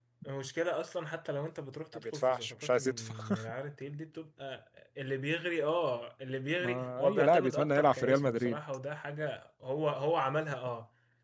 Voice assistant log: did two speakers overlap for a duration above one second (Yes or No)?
Yes